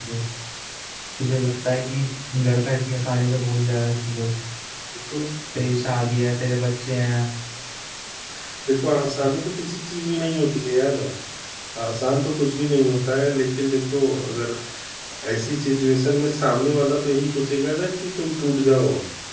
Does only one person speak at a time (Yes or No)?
Yes